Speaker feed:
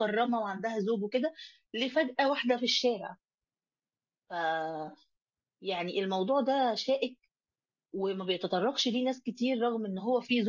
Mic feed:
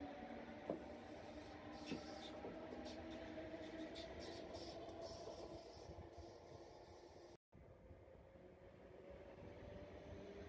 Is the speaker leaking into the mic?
No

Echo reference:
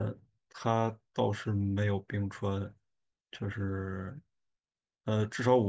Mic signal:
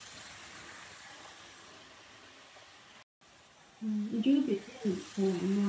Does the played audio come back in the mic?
No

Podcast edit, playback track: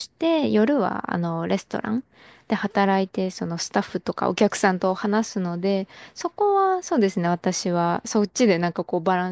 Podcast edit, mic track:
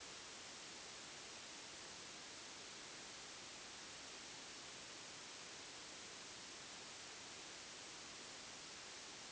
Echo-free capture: Yes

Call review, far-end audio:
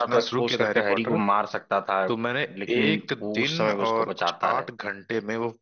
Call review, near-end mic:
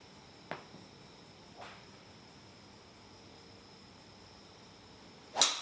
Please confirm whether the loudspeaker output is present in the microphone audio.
No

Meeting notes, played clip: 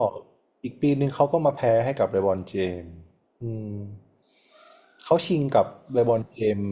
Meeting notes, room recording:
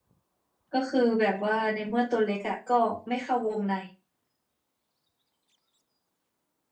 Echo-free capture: Yes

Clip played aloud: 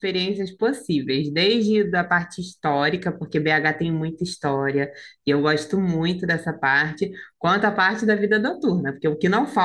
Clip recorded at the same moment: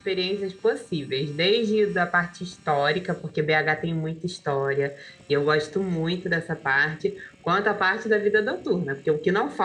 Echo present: Yes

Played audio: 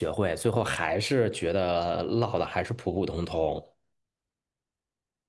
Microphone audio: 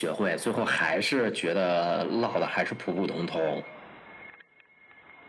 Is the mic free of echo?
No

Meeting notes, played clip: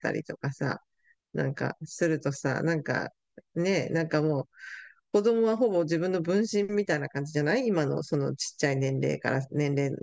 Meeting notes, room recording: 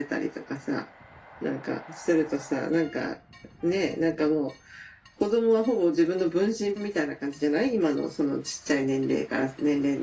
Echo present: Yes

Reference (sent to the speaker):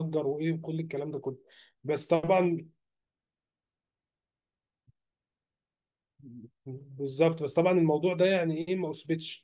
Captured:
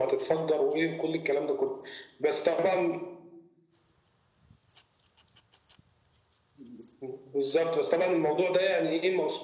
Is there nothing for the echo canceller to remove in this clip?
No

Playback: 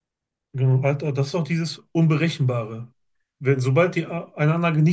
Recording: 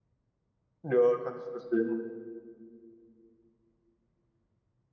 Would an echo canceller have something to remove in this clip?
No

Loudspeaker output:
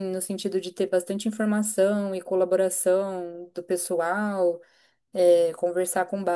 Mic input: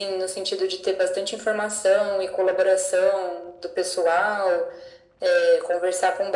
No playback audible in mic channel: No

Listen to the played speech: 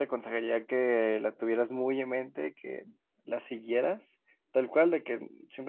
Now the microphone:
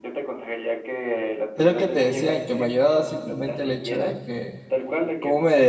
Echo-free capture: No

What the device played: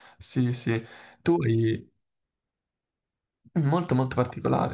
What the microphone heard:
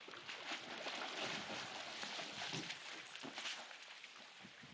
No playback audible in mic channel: Yes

